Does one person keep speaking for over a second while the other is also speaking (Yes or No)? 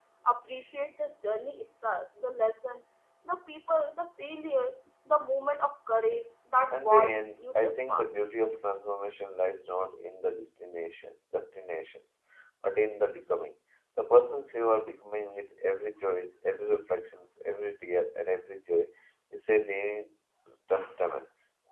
Yes